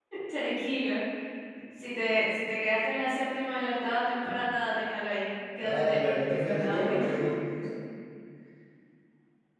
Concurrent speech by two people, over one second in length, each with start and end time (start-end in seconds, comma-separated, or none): 5.6-7.1